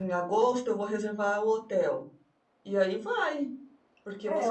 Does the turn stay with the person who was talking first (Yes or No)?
No